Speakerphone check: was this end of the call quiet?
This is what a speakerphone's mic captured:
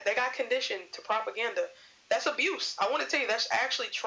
Yes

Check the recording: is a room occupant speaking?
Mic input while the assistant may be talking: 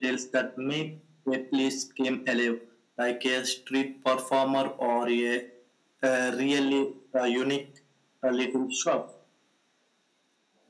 No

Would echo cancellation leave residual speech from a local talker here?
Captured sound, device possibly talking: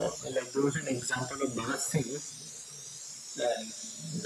No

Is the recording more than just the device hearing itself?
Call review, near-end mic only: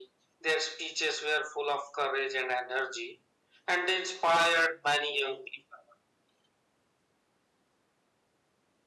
No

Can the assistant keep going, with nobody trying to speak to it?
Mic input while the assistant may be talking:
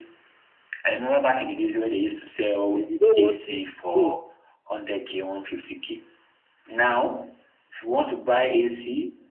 No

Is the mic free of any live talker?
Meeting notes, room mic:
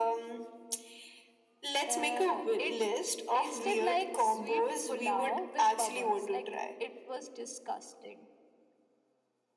Yes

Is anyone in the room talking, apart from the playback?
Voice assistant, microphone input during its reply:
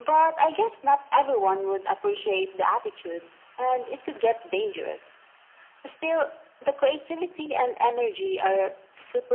No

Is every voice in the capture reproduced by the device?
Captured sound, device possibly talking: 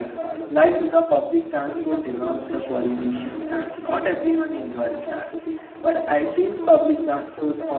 No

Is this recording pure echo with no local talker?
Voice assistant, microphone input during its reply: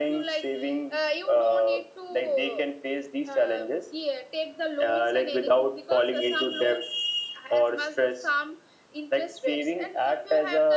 Yes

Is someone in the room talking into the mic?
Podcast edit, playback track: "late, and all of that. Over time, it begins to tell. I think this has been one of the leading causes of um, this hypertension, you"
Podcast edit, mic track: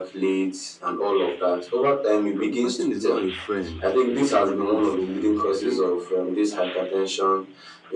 Yes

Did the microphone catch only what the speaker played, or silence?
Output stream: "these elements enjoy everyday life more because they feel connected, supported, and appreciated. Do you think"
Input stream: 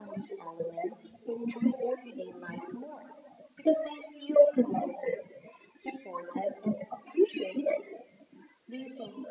Yes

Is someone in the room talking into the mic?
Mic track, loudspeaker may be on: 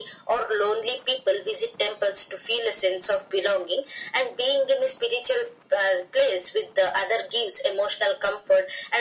No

